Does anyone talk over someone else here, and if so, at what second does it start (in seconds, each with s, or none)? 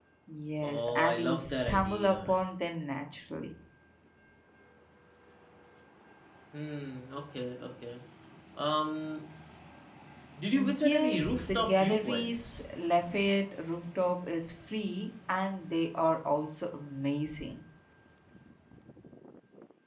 0.6 s